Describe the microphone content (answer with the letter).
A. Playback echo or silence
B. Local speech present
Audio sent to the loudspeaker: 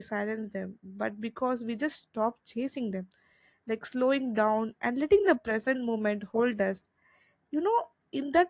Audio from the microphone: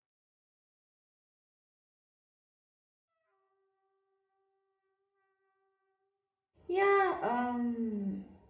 B